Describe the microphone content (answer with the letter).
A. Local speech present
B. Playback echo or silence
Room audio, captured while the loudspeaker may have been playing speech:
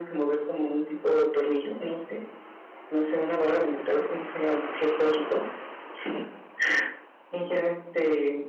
B